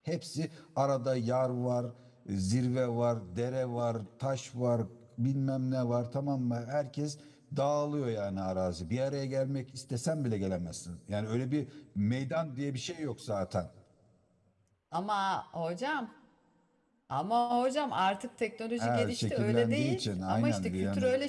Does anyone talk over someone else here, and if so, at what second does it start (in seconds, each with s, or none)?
18.8 s